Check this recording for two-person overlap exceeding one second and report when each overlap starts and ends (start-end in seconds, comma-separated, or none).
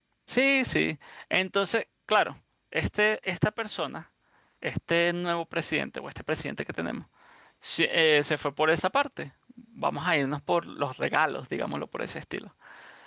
none